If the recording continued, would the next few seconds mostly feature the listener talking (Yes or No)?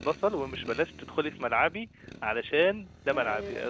No